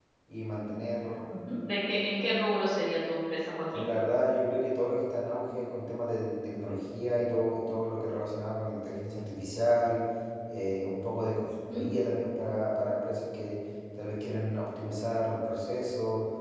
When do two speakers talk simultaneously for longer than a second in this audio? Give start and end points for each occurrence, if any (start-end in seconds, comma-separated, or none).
none